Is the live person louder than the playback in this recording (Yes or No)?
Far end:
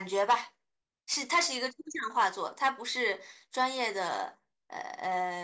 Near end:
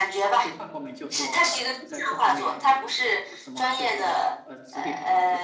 No